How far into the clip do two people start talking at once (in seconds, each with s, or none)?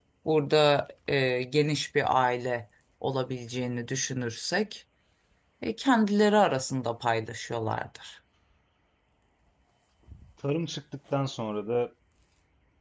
none